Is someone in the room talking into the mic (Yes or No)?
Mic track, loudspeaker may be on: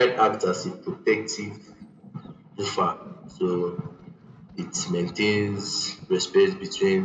No